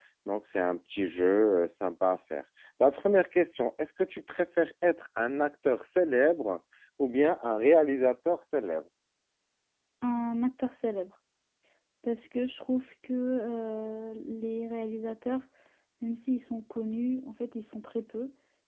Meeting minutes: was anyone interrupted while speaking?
No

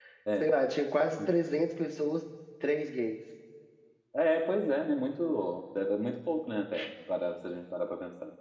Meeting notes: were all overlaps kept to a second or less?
Yes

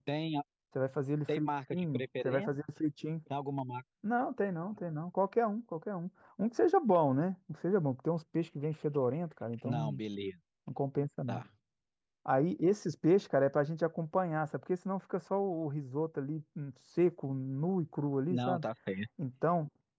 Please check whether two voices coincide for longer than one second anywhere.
Yes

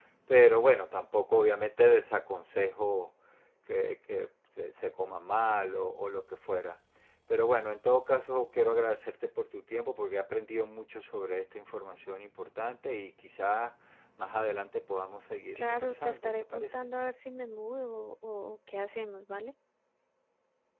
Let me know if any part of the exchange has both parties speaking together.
Yes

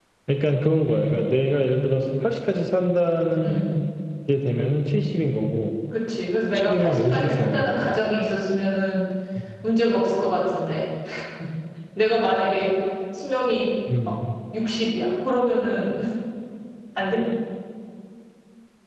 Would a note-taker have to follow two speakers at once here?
Yes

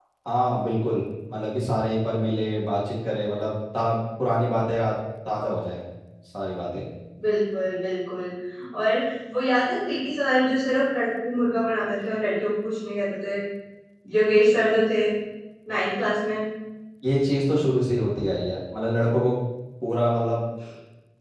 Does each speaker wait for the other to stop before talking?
Yes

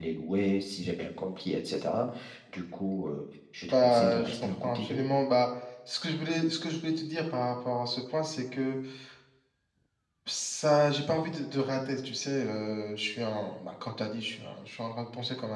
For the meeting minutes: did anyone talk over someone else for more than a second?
Yes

